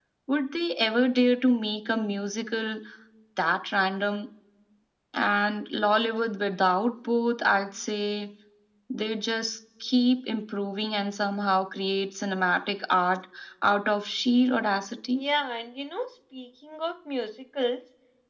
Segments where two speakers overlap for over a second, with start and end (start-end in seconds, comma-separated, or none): none